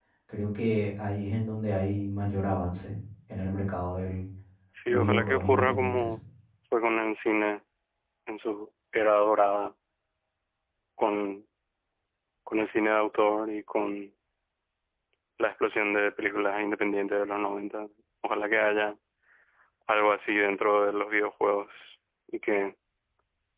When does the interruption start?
4.9 s

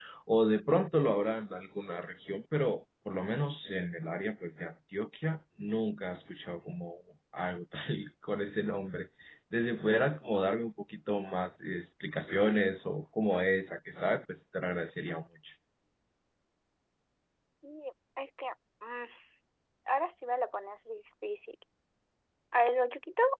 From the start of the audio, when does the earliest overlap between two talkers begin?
none

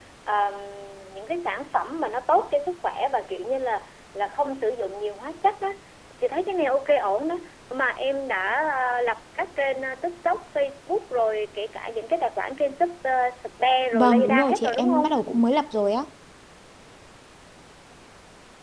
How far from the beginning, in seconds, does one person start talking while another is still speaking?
13.9 s

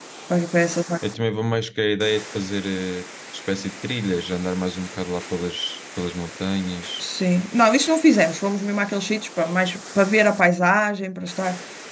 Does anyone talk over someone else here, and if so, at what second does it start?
none

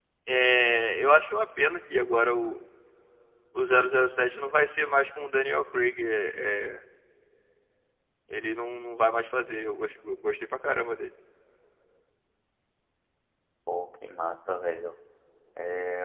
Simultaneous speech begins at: none

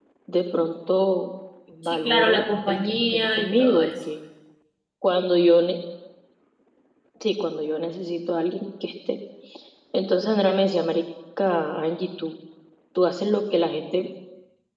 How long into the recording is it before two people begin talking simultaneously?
1.8 s

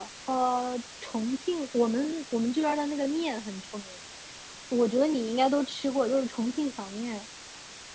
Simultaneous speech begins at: none

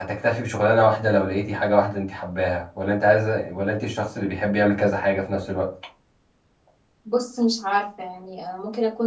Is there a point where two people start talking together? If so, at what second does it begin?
none

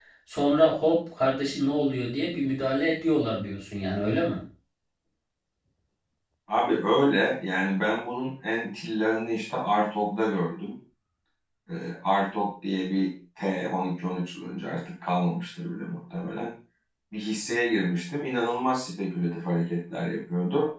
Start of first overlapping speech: none

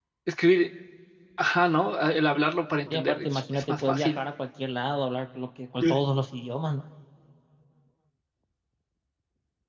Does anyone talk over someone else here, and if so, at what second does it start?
2.9 s

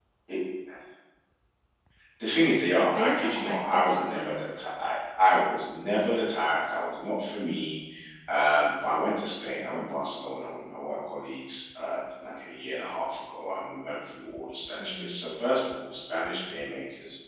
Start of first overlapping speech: 2.8 s

